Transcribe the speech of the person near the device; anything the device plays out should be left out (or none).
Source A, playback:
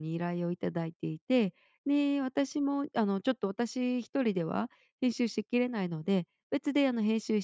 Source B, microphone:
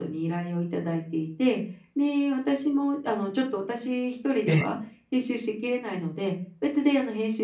ええ。